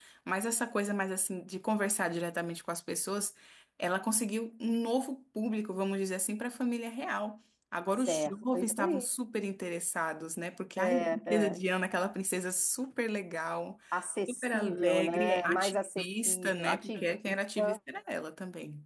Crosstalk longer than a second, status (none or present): present